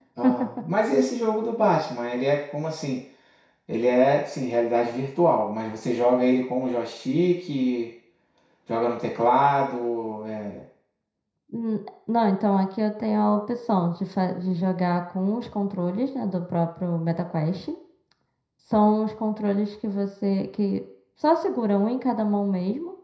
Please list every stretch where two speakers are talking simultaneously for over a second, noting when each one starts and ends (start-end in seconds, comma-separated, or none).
none